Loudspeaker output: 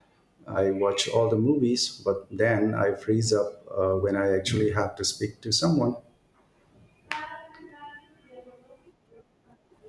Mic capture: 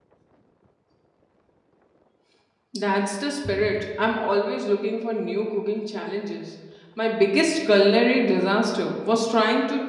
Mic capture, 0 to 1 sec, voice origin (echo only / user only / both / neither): neither